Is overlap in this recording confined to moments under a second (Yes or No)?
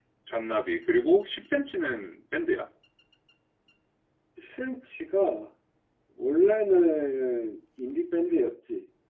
Yes